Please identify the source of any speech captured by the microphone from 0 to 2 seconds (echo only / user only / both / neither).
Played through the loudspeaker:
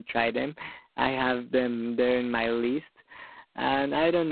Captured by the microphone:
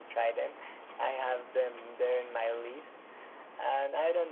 echo only